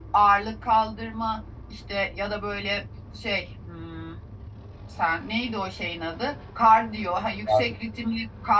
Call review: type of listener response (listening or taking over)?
listening